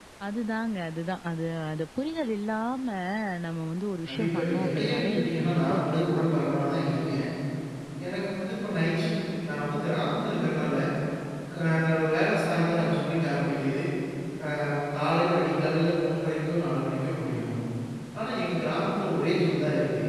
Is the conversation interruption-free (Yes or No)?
No